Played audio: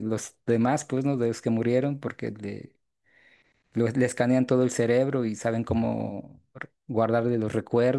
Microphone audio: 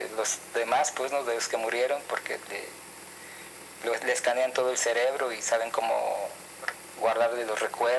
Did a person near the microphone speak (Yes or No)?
No